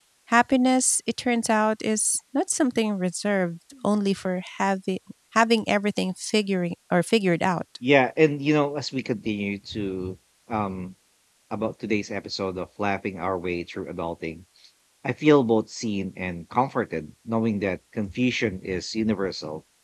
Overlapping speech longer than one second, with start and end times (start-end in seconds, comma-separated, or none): none